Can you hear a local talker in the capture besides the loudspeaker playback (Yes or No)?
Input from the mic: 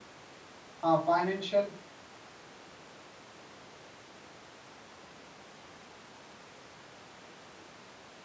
Yes